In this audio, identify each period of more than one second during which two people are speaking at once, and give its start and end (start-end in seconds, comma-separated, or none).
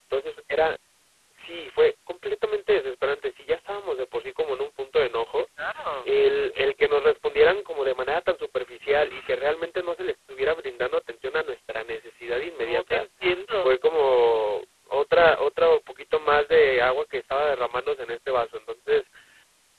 none